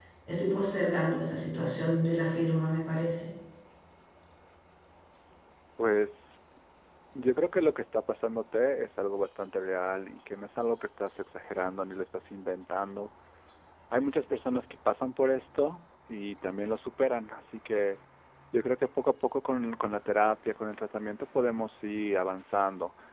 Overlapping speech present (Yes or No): No